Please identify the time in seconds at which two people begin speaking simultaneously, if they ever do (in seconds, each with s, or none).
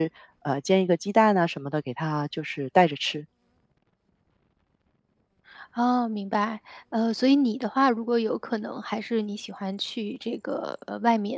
none